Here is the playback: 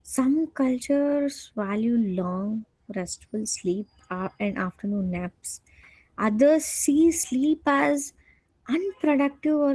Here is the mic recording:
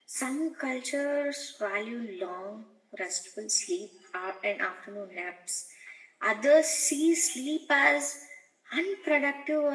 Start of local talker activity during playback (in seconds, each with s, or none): none